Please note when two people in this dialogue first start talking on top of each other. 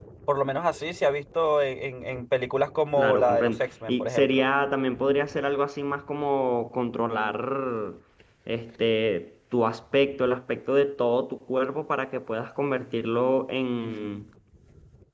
3.0 s

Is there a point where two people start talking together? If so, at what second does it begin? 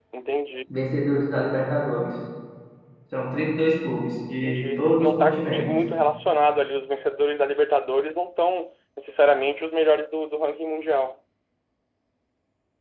4.4 s

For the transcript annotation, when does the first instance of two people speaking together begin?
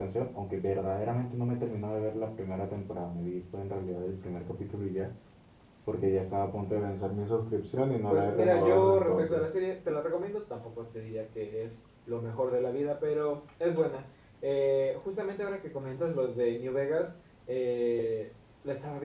8.1 s

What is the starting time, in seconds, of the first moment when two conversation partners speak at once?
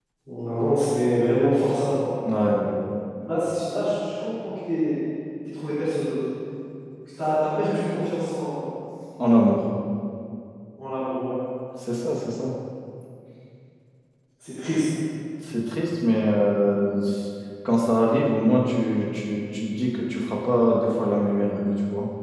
none

